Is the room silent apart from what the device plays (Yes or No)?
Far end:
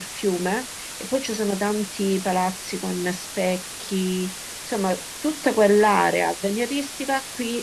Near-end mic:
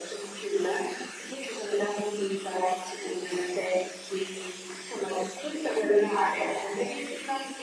Yes